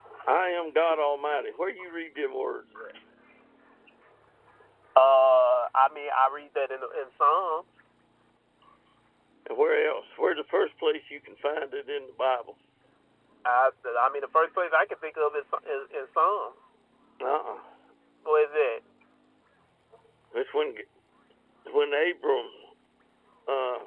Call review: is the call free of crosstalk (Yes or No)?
Yes